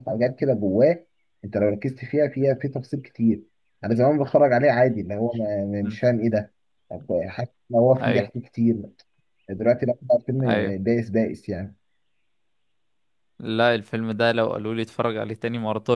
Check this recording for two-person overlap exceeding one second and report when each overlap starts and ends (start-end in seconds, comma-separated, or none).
none